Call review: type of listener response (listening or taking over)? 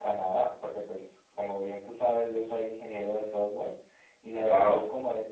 listening